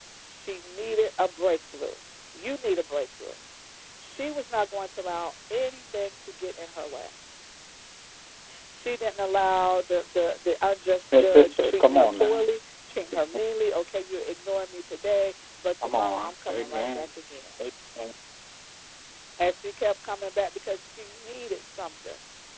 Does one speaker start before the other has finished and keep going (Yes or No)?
Yes